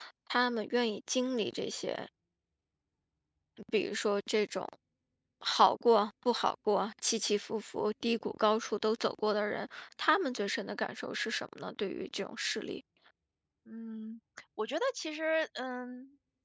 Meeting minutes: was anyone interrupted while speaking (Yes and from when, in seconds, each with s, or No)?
No